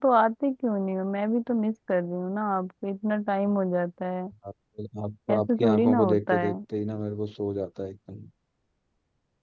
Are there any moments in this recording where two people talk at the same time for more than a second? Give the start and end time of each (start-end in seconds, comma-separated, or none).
5.3-6.5